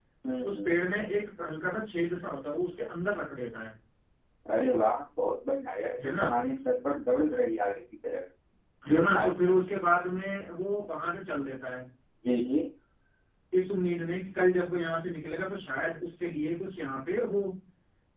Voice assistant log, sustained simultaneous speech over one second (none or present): none